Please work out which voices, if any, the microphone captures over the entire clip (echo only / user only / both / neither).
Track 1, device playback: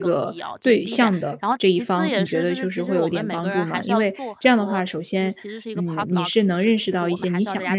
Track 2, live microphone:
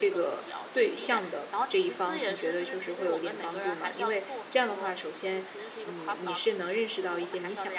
echo only